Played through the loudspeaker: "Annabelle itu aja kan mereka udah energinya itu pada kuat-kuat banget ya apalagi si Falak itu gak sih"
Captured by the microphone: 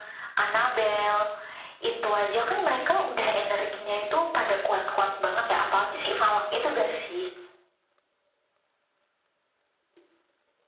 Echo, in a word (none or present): present